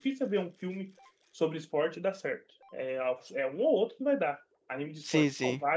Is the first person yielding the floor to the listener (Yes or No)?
Yes